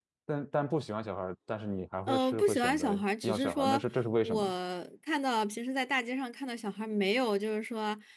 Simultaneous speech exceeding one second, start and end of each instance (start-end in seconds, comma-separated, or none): 2.1-3.8